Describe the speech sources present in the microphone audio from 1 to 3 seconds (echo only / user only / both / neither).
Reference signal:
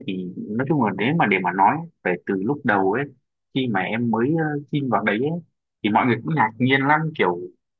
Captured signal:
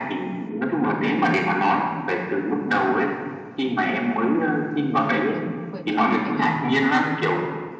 echo only